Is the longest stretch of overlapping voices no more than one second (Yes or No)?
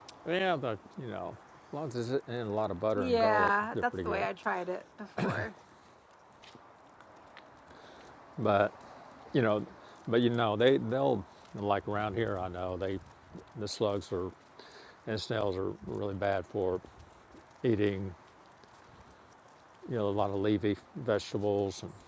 No